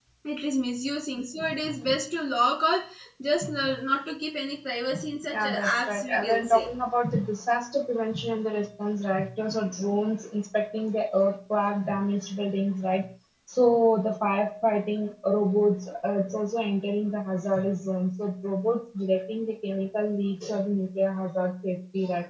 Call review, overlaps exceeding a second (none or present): present